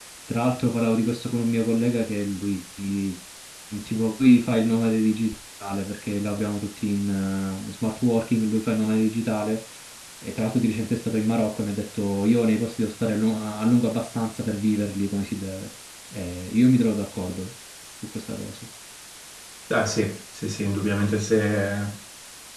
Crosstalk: none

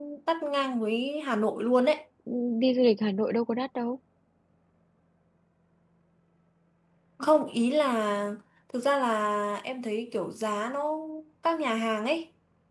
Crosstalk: none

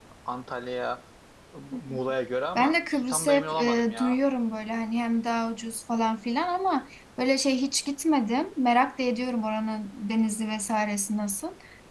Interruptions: present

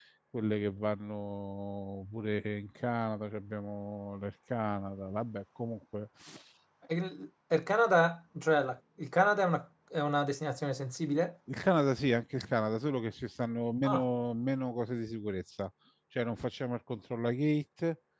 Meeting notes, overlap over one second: none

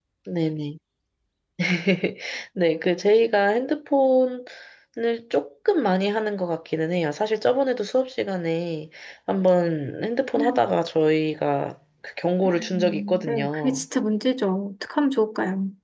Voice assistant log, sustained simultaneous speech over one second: present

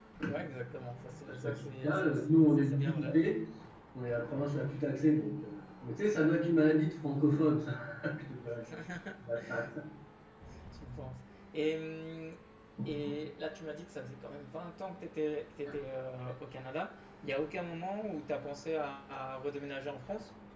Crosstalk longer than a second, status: present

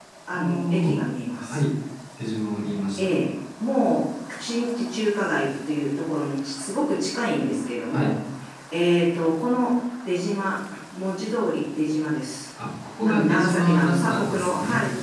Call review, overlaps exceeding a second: present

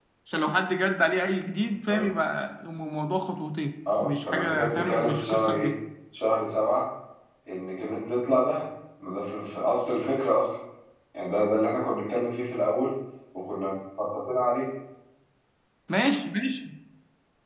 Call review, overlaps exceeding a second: present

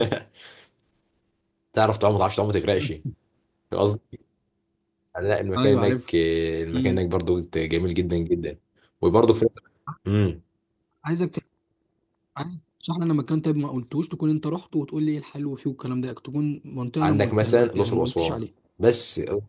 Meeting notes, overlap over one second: present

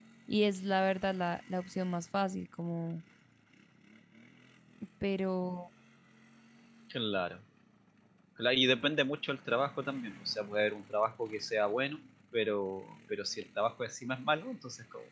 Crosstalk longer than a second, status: none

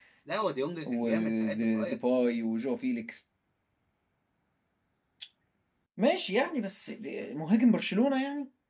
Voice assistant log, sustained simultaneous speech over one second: present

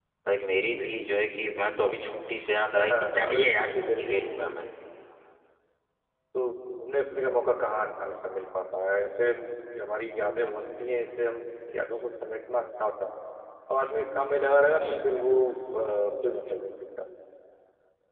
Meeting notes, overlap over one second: present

